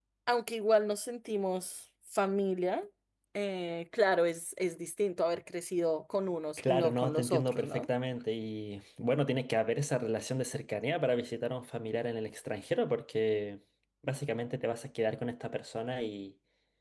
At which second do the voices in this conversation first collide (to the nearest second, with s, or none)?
7 s